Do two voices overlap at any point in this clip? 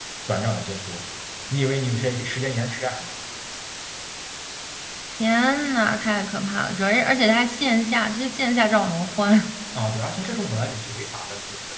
No

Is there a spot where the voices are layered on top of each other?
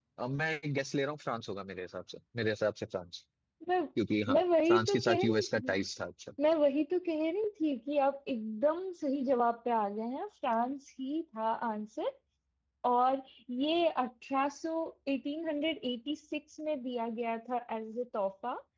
Yes, from 4.3 s

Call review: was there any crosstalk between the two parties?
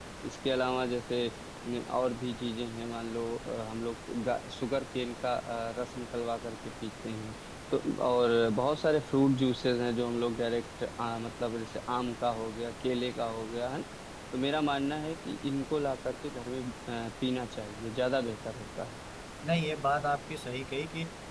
No

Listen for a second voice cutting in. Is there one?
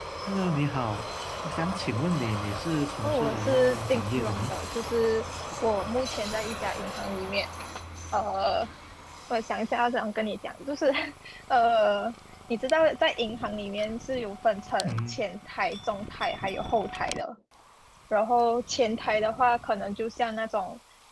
Yes, from 3.0 s

